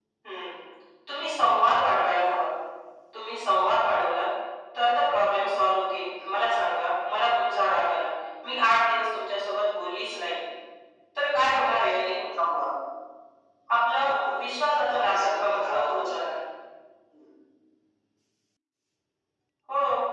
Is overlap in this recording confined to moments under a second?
No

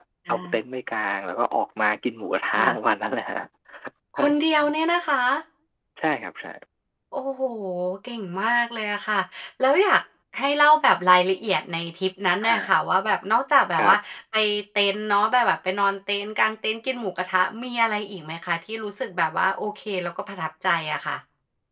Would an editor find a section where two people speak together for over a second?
No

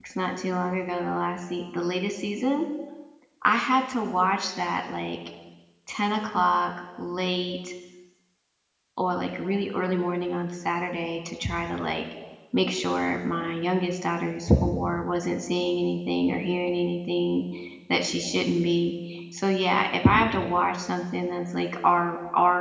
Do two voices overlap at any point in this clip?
No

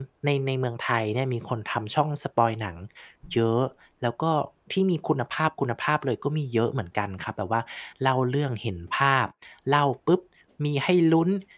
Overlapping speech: No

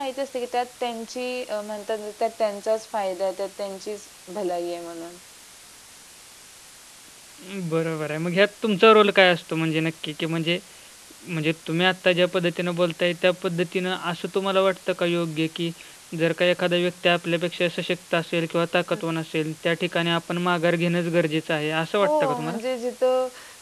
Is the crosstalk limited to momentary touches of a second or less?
Yes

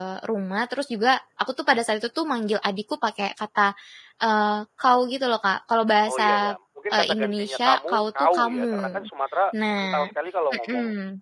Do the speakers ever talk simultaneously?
Yes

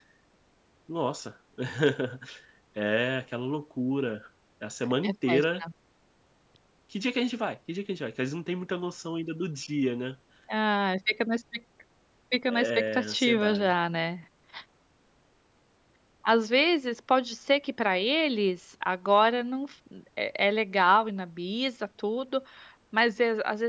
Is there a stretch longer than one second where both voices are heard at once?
Yes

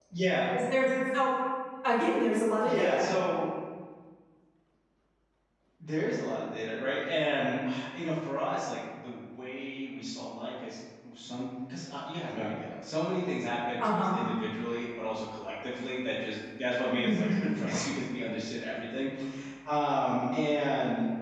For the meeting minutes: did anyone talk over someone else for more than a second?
No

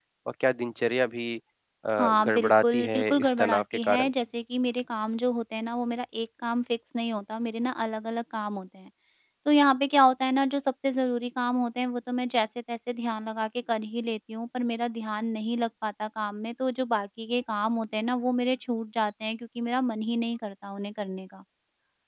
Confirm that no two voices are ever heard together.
No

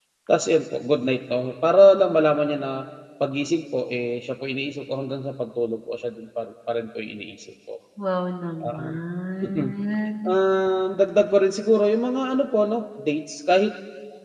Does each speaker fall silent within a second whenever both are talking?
Yes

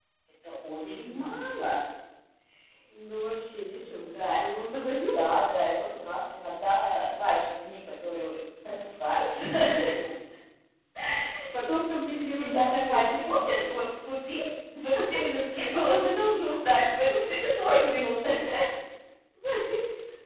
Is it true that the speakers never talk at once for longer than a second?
No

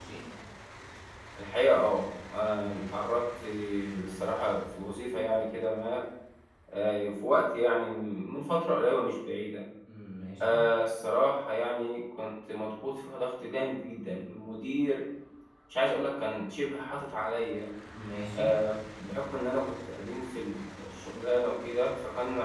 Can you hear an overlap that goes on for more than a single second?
No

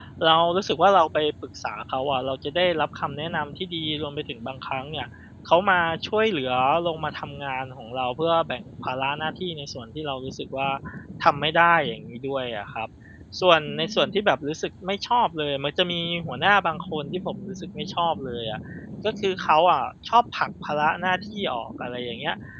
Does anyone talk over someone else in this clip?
No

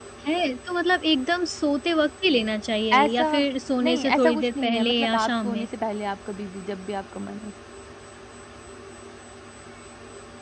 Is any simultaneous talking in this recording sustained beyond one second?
Yes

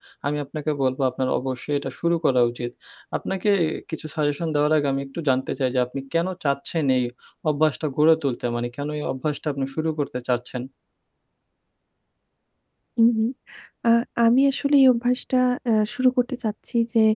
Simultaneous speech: No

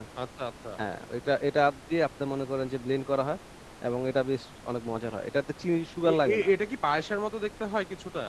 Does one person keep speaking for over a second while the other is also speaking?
No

